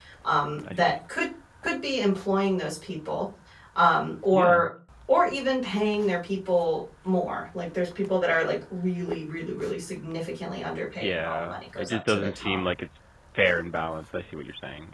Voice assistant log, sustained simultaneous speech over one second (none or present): present